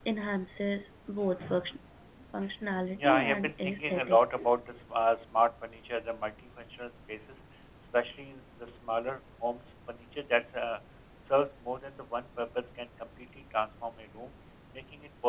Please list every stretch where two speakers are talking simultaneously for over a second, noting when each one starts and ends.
3.0-4.4

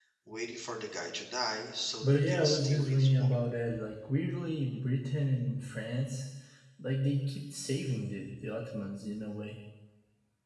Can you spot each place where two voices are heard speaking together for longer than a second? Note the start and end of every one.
2.0-3.3

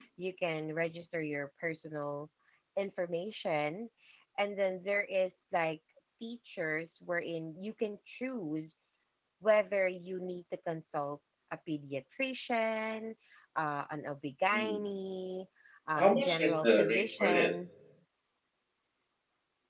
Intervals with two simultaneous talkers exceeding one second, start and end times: 15.9-17.5

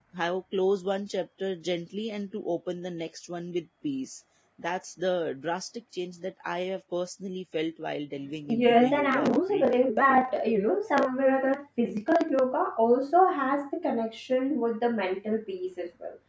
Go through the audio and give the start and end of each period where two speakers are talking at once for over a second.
8.5-9.8

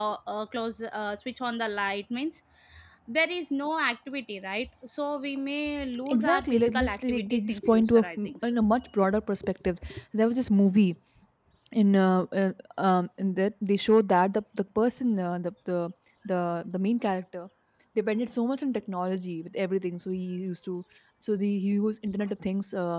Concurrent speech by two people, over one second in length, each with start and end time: 6.1-8.5

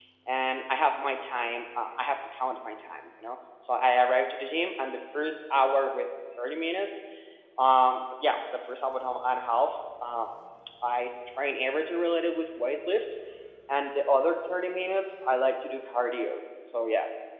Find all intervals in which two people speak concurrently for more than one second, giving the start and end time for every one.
none

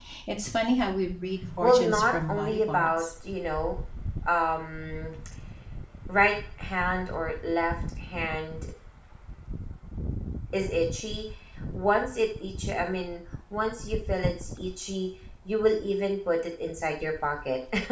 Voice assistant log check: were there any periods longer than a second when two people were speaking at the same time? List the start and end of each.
1.6-3.0

